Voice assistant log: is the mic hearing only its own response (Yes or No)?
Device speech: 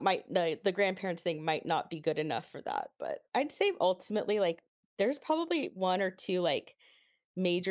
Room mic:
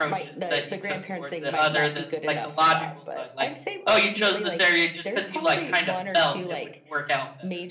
No